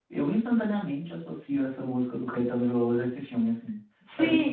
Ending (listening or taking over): taking over